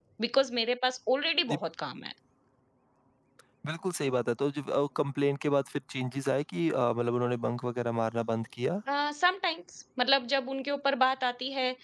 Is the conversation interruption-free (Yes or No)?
Yes